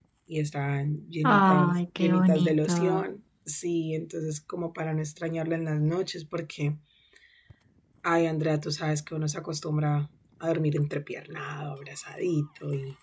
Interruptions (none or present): present